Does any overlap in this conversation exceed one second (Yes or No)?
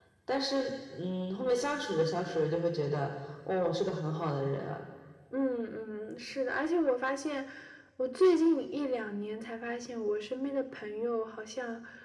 No